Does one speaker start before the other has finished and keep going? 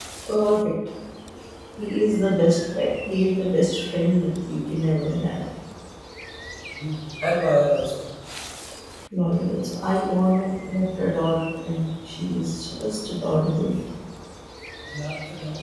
No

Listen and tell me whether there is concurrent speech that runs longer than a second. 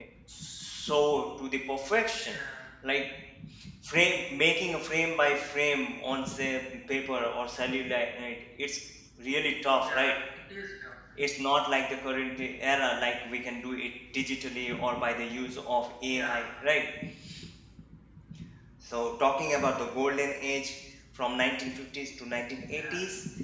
No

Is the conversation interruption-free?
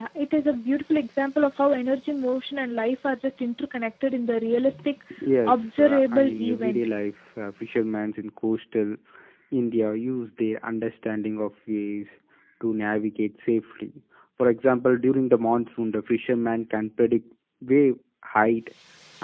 No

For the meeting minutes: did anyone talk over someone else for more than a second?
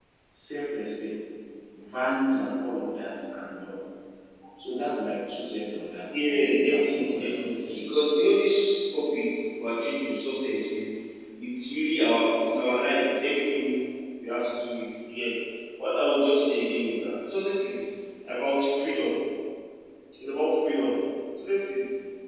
Yes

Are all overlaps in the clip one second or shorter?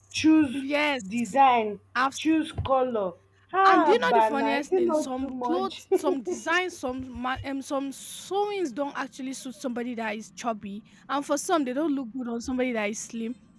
No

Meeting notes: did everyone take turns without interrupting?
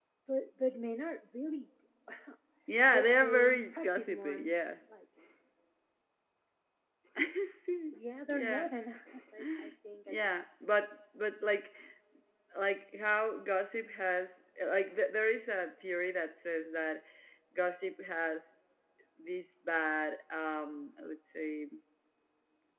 No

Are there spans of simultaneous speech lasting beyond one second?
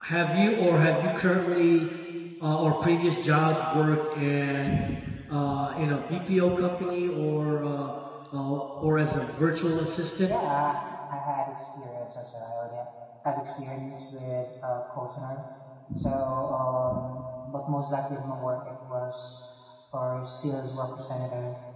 No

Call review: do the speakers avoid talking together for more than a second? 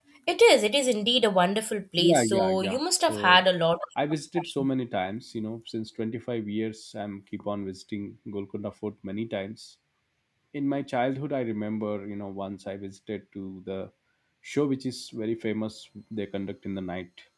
No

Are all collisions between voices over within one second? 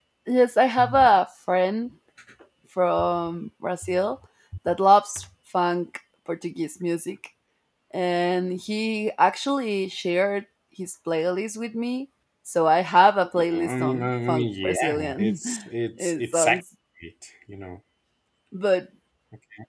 No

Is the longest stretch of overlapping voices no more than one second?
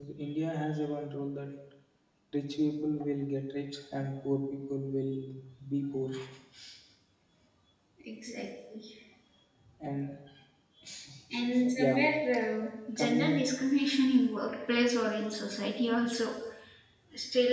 Yes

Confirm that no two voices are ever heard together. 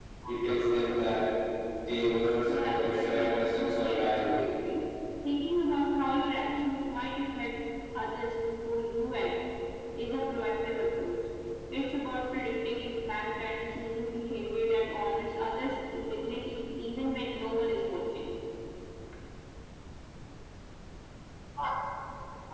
No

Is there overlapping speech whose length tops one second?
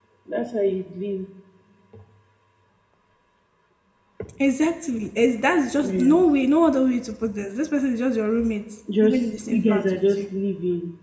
Yes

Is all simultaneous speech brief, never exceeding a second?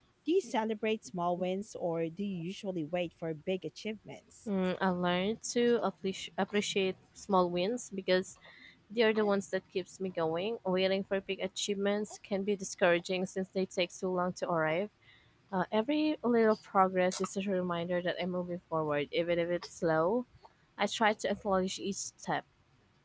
Yes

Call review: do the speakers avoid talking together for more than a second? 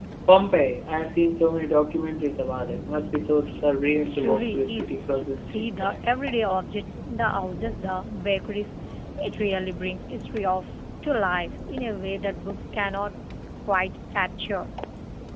No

